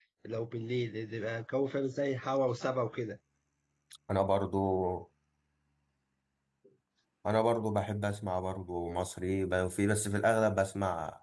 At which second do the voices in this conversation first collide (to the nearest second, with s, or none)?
none